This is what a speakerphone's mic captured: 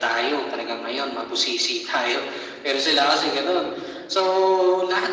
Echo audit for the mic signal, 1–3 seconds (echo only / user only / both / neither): echo only